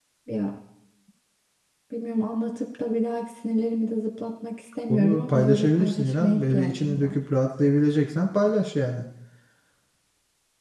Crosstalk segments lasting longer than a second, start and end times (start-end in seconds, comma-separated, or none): 4.9-7.2